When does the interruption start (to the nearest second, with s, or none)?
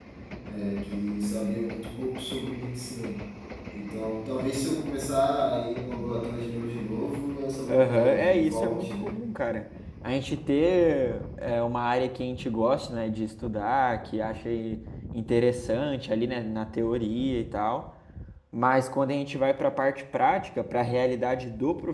8 s